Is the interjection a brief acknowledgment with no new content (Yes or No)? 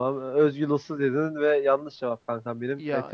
Yes